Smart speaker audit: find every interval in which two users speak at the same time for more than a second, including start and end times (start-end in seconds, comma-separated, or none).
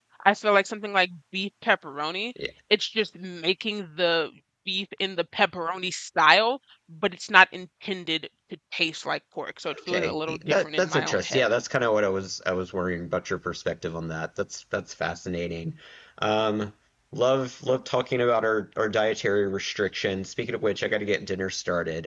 9.9-11.4